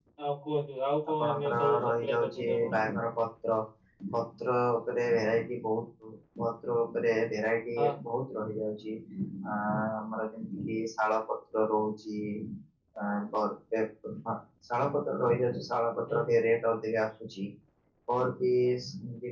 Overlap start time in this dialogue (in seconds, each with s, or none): 1.2 s